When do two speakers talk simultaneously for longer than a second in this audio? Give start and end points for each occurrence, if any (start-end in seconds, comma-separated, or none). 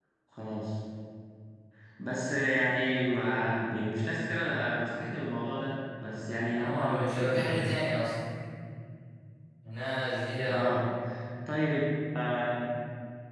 6.4-7.6